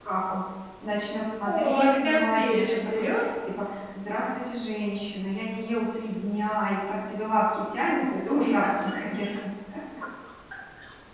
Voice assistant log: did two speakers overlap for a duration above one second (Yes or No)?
Yes